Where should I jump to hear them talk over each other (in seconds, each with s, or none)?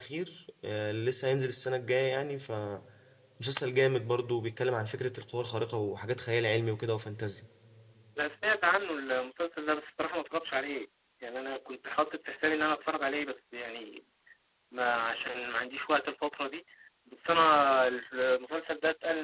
none